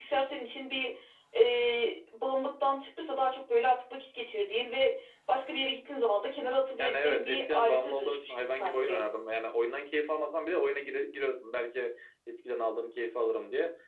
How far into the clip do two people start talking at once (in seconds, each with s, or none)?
6.8 s